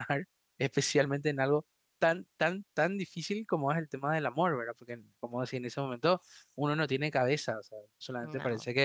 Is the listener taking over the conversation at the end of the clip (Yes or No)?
No